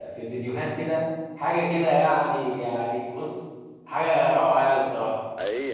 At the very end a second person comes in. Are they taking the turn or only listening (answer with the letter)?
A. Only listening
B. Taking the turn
B